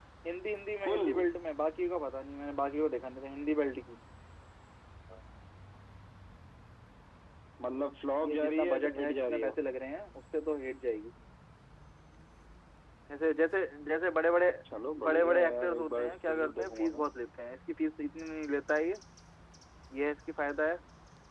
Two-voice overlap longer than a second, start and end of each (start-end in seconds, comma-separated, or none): 8.2-9.5, 15.0-17.1